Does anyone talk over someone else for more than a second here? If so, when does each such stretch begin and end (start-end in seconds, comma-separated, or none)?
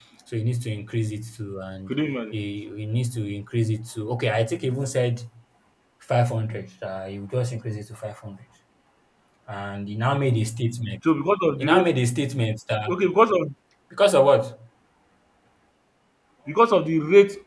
none